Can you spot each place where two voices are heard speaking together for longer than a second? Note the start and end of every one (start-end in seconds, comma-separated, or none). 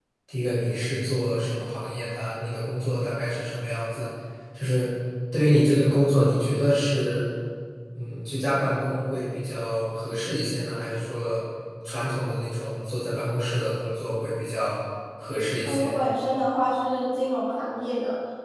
none